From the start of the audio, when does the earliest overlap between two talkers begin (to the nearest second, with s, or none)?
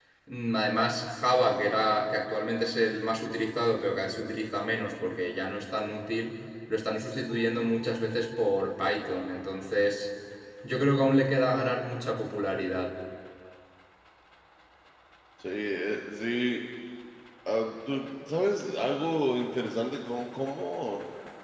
none